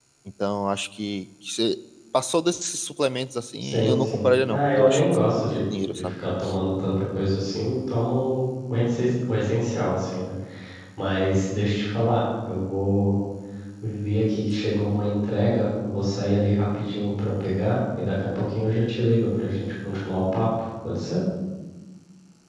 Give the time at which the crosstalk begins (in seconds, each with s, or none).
3.6 s